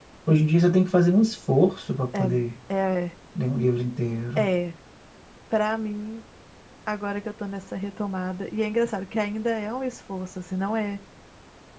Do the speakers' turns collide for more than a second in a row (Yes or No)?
No